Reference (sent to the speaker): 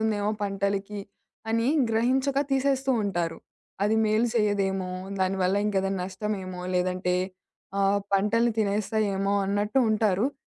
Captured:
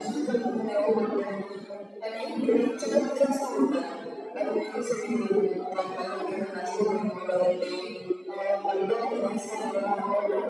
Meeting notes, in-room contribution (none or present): none